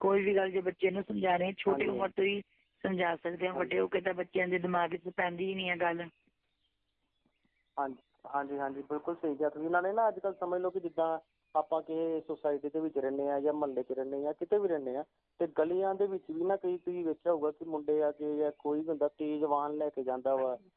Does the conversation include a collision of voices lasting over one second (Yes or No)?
No